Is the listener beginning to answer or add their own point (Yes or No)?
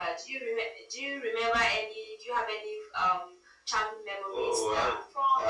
Yes